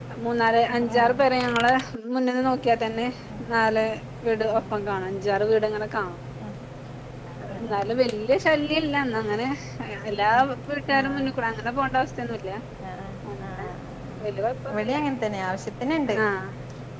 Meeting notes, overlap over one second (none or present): none